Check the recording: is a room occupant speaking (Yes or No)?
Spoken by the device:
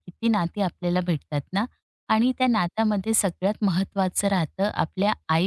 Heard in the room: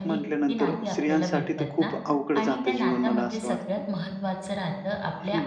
Yes